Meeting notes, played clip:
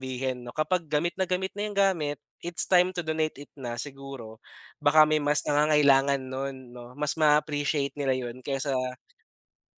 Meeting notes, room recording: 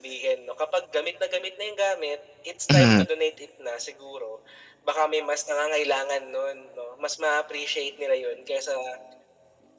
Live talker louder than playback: Yes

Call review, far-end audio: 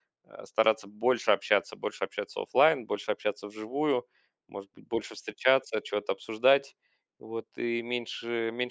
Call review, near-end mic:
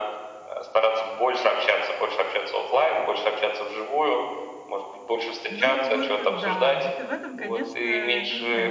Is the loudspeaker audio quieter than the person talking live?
No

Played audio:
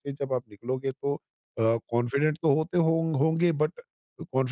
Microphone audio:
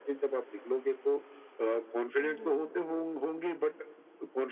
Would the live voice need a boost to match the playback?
Yes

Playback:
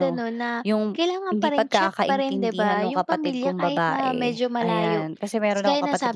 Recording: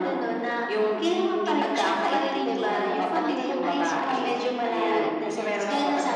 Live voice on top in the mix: No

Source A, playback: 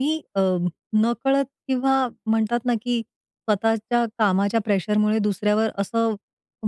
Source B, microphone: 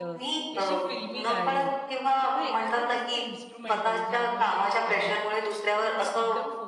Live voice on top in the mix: No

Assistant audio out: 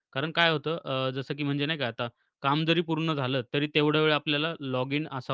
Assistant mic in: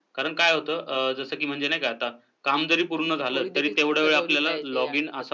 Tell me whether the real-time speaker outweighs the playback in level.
No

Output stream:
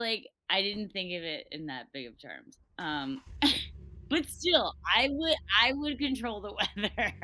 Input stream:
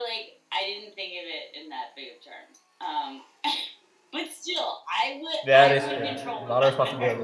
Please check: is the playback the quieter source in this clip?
Yes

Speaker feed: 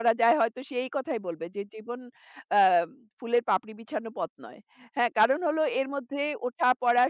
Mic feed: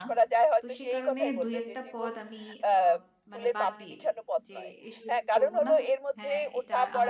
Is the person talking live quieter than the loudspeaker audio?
Yes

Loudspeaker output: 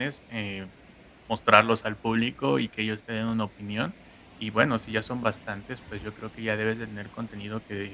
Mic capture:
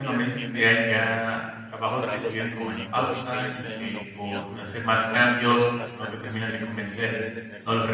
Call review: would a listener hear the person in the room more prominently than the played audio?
Yes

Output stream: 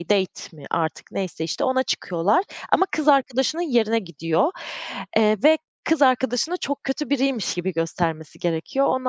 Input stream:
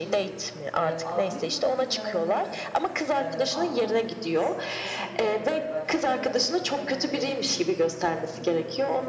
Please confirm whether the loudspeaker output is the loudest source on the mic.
Yes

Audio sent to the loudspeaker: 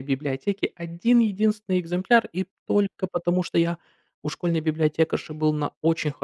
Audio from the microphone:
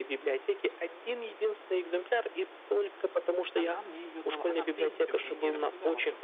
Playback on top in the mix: Yes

